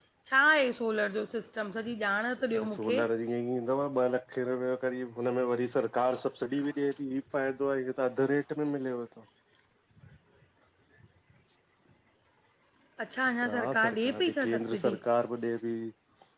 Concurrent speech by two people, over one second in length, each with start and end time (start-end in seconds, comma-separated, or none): 13.5-15.0